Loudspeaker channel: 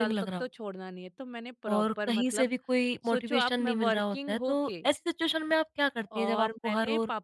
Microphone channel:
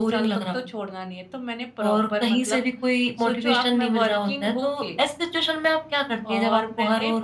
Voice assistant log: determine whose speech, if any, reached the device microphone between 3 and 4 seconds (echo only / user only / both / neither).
echo only